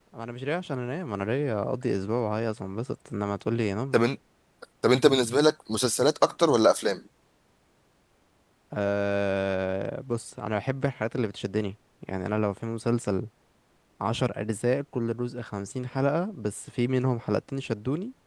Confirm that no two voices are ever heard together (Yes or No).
Yes